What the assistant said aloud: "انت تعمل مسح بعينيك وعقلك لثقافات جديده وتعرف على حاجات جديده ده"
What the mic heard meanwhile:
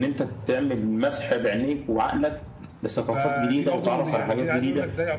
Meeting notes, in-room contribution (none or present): present